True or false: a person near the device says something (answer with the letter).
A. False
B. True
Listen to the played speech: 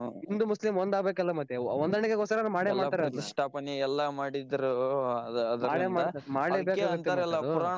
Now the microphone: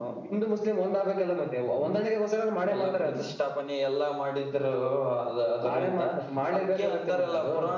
A